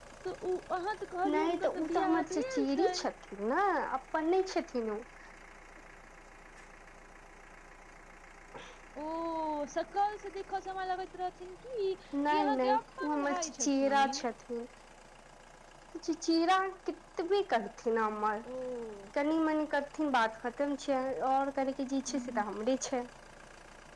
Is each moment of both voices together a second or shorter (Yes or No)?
No